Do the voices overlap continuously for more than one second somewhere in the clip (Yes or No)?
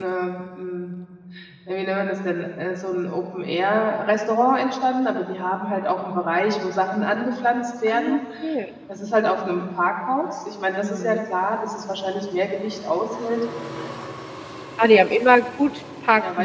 No